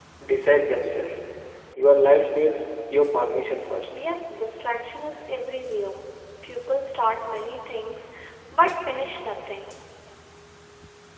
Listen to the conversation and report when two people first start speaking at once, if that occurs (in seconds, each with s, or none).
none